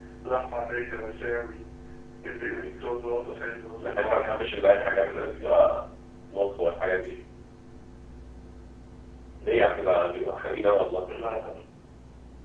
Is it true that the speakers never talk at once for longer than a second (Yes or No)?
No